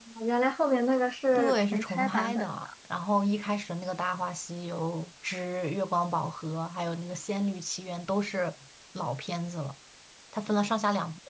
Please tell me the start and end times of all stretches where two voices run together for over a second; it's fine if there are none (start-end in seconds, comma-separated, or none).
1.3-2.7